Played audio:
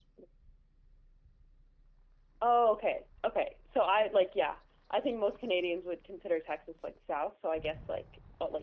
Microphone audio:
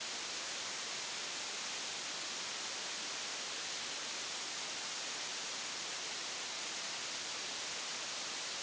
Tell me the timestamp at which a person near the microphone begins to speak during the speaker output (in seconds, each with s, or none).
none